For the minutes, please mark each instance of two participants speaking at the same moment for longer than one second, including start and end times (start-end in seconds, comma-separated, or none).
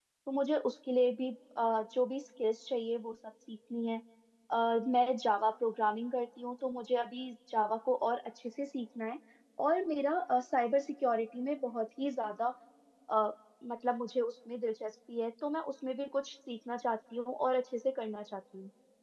none